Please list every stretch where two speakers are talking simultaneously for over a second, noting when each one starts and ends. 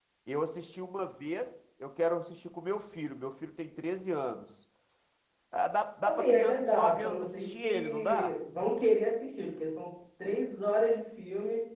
6.0-8.3

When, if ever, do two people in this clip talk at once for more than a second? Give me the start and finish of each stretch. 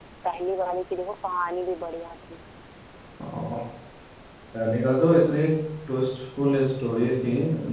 none

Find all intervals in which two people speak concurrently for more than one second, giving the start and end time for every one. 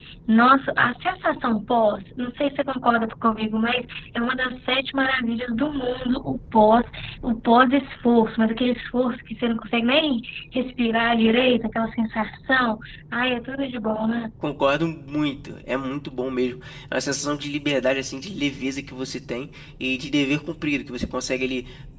none

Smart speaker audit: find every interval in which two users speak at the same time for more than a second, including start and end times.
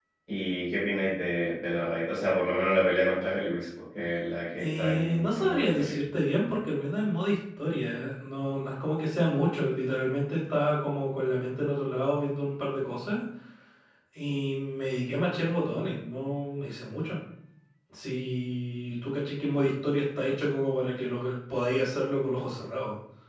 4.6-5.9

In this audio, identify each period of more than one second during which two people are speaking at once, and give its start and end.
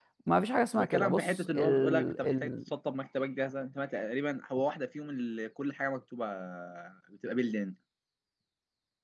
0.8-2.5

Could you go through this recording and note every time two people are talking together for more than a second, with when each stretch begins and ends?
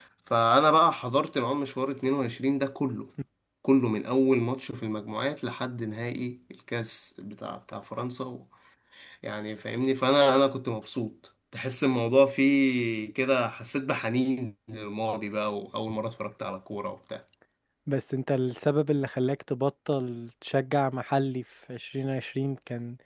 none

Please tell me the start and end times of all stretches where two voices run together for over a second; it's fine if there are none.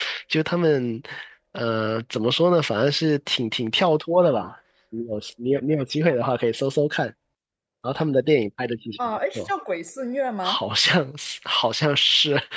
none

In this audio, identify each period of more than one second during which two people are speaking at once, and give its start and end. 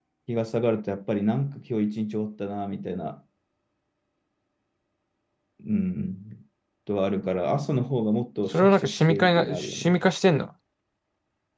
8.5-9.9

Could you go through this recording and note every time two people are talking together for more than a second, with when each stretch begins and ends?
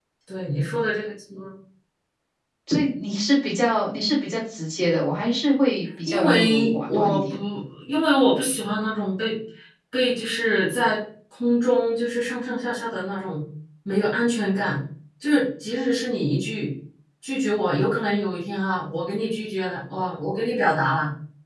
6.0-7.4

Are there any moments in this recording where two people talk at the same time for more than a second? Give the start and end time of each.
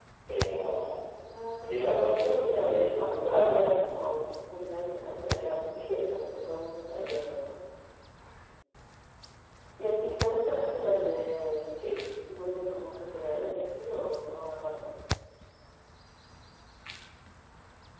1.6-3.7

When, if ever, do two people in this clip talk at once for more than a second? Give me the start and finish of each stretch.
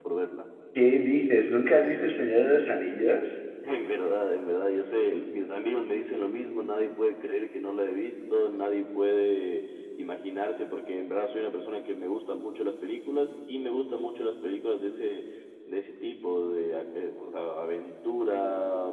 none

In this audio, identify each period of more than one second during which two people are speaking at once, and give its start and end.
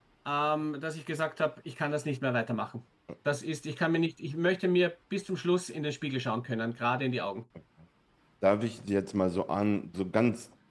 none

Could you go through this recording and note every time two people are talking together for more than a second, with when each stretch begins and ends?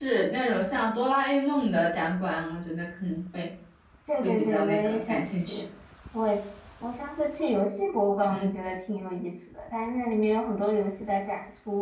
4.2-5.6

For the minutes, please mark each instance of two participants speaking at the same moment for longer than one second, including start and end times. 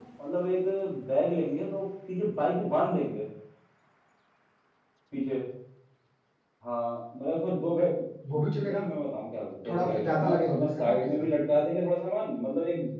9.7-11.1

